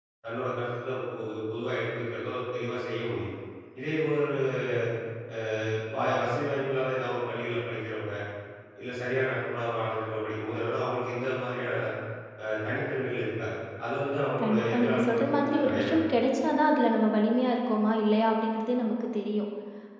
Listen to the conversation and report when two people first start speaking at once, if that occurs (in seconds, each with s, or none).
14.4 s